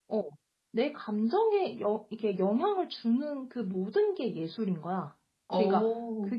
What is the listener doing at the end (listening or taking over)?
listening